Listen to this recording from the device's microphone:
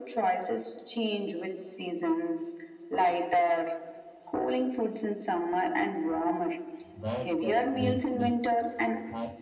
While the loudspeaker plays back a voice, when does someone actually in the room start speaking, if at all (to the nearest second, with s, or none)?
7 s